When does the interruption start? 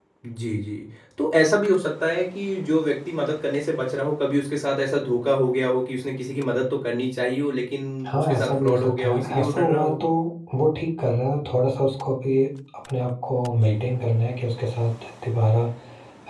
8.2 s

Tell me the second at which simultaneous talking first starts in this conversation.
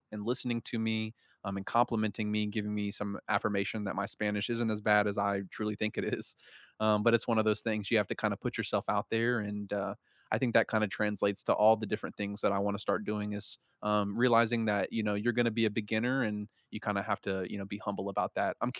none

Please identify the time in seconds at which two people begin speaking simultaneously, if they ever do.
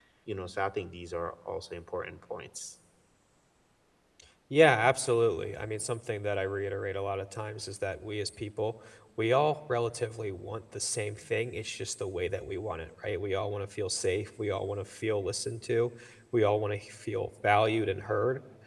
none

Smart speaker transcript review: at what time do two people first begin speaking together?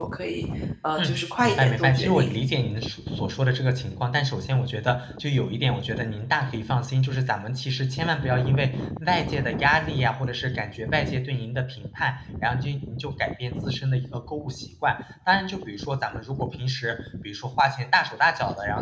1.0 s

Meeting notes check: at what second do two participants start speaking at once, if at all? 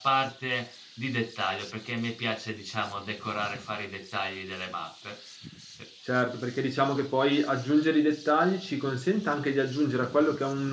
none

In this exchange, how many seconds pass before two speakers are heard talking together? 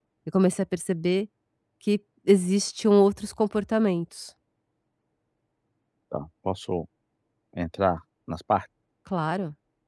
none

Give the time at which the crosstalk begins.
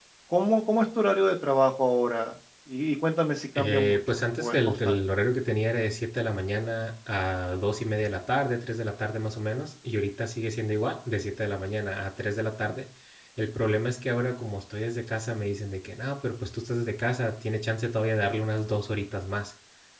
3.5 s

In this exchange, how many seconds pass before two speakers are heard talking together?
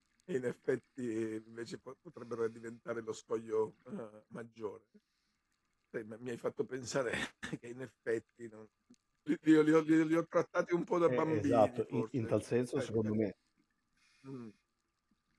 11.1 s

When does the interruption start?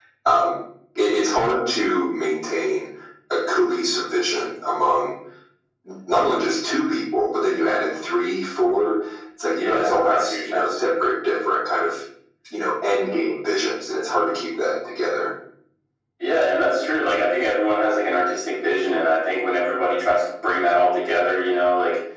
9.5 s

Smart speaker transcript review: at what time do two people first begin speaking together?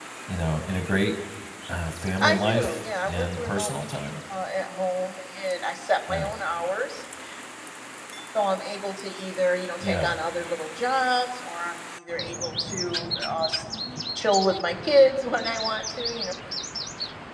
2.2 s

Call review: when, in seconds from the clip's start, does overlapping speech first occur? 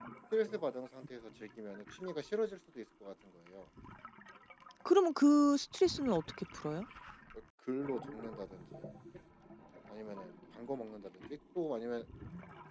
none

